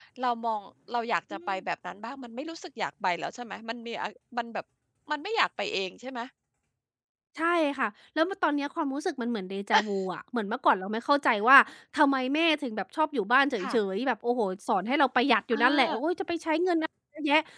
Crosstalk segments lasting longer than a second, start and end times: none

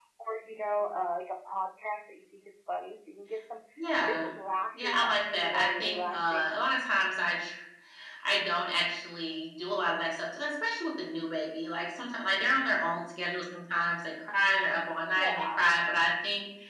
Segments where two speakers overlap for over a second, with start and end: 4.7-6.6

